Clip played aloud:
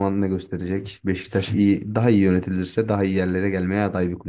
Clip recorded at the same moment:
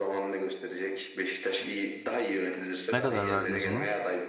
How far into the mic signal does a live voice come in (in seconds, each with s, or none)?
2.9 s